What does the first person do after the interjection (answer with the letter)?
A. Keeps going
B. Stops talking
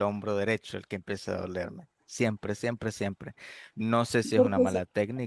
A